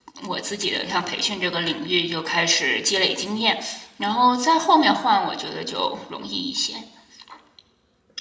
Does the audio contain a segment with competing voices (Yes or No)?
No